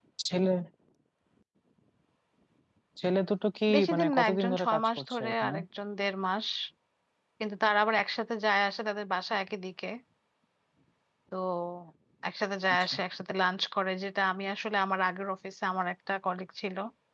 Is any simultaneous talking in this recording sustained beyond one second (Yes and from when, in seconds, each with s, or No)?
Yes, from 3.7 s